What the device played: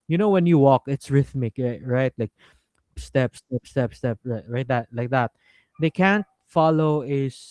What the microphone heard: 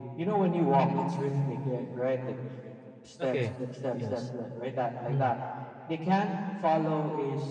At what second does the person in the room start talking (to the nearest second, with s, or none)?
3 s